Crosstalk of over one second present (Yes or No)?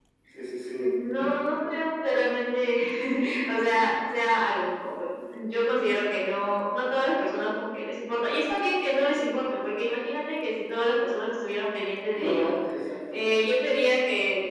No